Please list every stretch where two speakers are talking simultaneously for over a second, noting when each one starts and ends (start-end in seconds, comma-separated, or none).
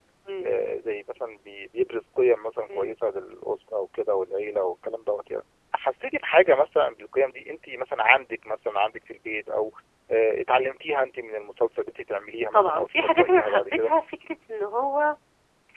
12.5-13.9